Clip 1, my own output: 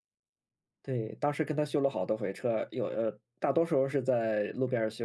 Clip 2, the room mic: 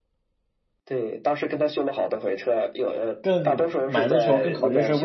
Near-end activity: present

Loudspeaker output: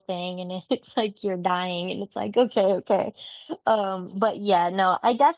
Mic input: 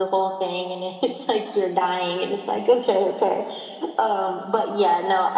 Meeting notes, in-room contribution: none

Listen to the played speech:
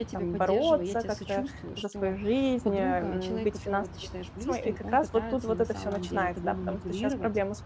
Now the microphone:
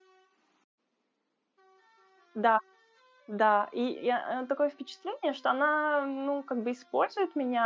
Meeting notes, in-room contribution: present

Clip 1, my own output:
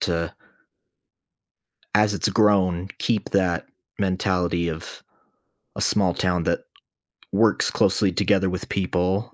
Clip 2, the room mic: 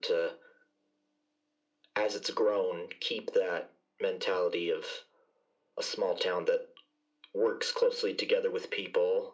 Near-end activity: none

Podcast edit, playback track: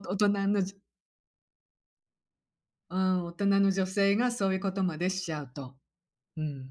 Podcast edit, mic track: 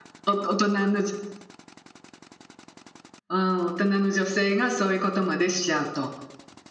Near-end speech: none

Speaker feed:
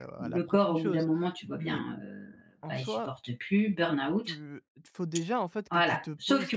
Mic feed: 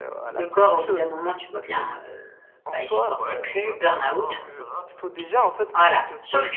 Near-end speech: present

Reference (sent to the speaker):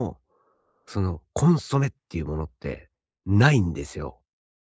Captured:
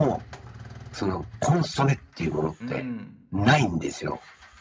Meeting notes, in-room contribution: present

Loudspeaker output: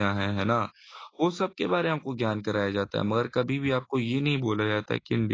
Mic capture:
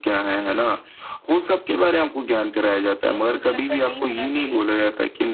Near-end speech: present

